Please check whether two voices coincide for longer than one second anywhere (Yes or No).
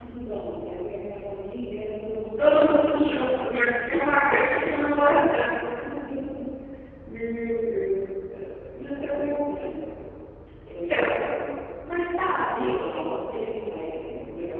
Yes